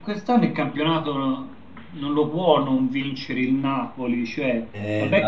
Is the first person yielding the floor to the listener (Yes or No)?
No